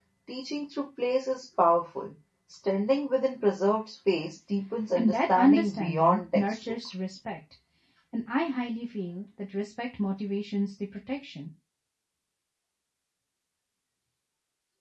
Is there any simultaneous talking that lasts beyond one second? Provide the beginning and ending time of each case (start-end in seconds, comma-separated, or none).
5.0-6.6